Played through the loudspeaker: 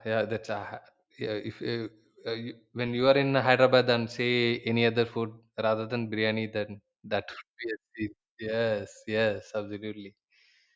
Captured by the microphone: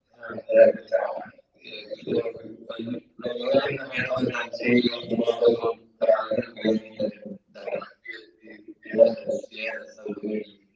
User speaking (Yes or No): No